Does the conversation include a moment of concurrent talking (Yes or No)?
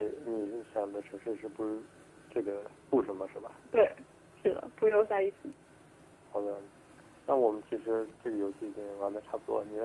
No